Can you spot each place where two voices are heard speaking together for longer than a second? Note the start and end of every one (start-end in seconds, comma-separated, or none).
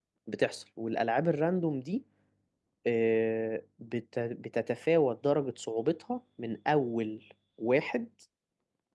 none